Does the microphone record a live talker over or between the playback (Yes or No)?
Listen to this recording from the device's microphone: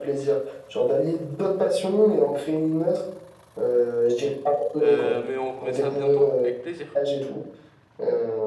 Yes